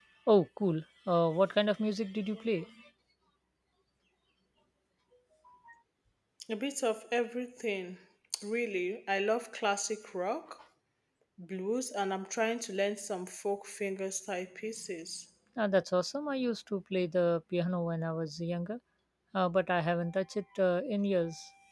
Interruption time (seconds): none

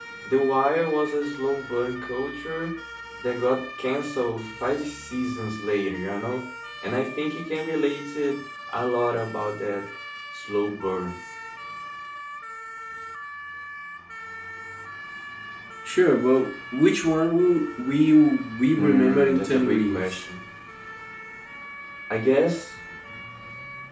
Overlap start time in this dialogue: 18.7 s

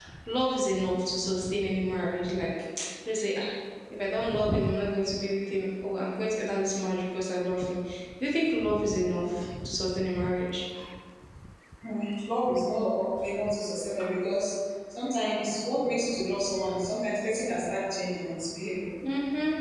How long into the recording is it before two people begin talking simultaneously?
none

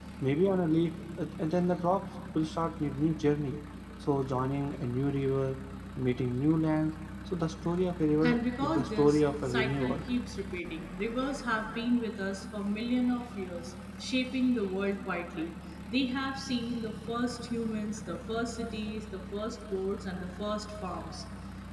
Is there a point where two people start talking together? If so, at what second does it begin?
8.2 s

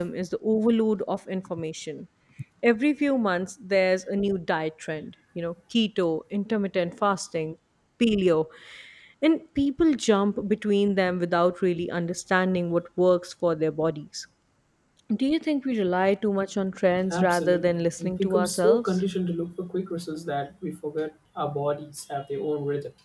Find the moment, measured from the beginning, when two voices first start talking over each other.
17.1 s

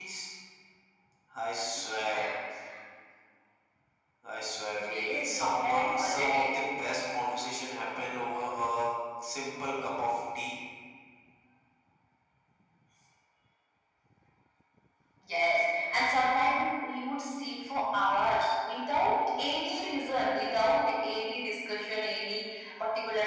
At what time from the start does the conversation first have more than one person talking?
4.8 s

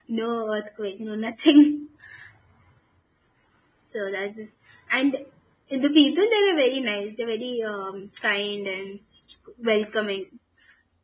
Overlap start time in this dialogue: none

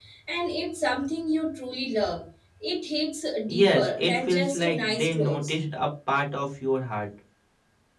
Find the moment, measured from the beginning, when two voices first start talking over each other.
3.5 s

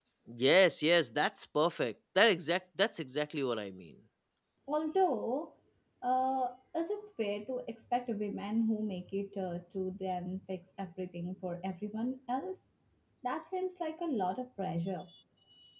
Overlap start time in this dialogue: none

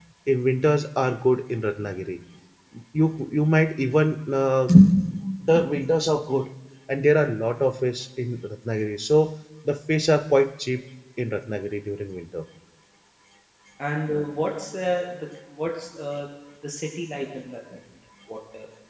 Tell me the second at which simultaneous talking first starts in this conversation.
none

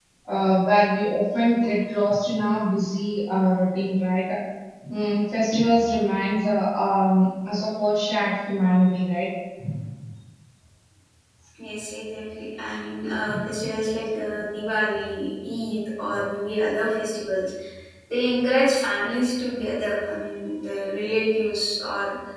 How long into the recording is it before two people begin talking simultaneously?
none

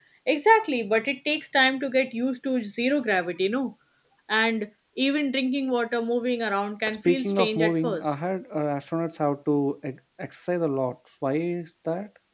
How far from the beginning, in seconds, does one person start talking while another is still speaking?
6.9 s

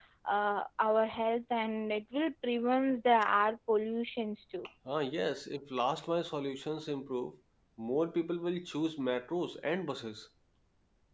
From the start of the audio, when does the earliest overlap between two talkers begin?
none

